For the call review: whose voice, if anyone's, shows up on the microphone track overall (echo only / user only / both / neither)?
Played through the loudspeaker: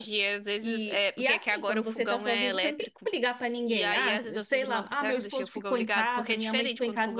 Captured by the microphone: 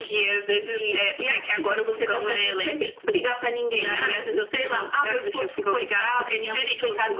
echo only